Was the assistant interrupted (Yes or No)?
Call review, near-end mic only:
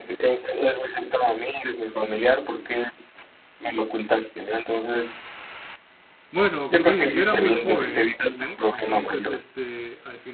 Yes